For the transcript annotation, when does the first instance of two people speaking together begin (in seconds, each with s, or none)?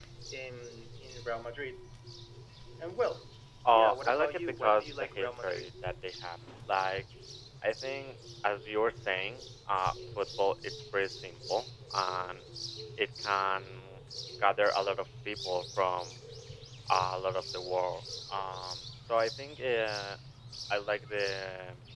3.7 s